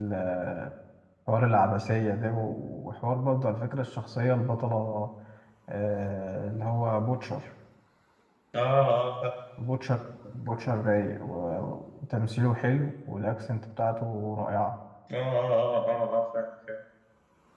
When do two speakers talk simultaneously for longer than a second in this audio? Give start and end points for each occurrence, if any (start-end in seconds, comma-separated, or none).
none